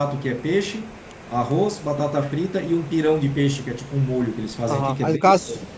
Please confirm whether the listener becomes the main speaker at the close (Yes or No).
Yes